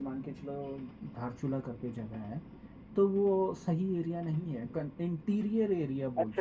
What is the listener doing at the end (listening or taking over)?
taking over